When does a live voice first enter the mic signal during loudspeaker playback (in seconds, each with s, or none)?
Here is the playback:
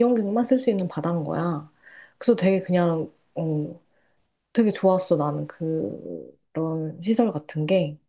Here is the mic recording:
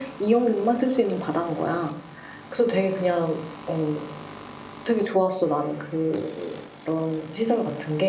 none